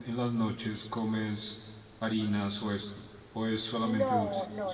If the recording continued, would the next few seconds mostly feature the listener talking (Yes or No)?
Yes